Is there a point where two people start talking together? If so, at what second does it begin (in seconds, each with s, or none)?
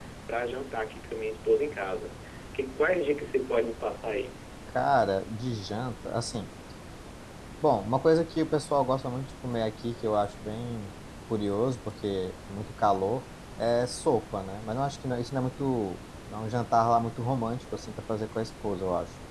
none